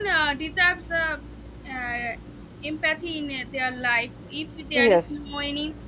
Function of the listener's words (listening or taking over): listening